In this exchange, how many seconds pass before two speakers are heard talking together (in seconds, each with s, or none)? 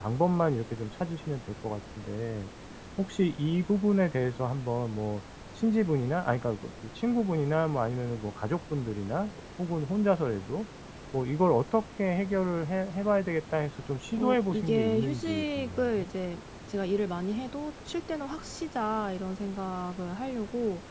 14.1 s